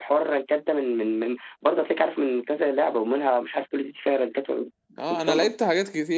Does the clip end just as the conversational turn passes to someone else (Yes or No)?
Yes